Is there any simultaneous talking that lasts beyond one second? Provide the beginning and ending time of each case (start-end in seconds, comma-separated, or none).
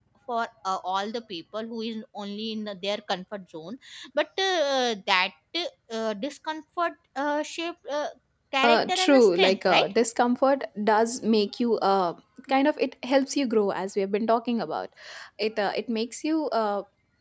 8.6-9.9